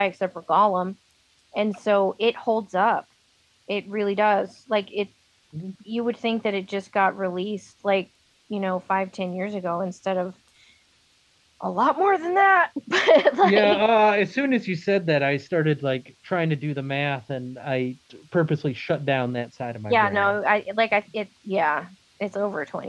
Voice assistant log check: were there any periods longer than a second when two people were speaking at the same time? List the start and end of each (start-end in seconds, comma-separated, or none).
none